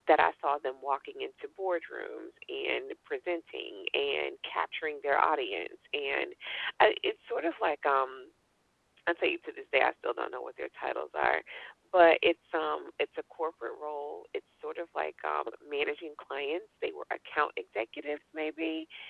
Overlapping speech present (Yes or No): No